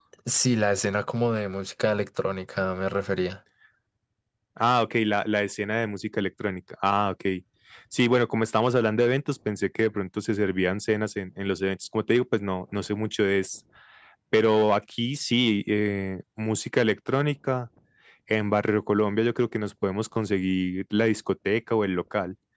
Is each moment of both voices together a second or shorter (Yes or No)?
Yes